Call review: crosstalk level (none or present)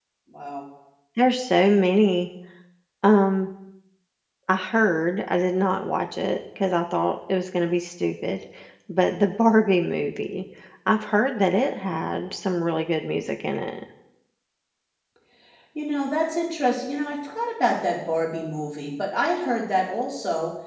none